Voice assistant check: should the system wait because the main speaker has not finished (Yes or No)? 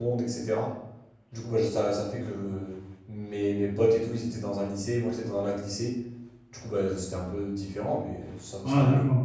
No